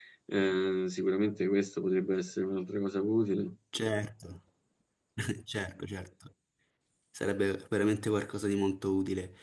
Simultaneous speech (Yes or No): No